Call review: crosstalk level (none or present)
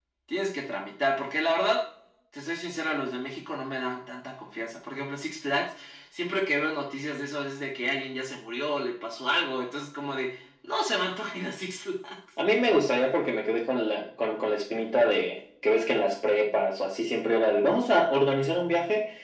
none